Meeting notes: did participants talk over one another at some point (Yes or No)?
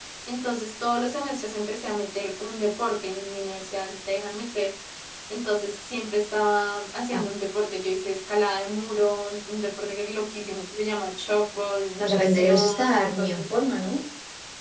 Yes